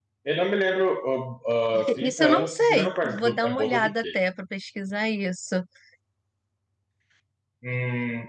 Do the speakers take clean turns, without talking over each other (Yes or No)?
No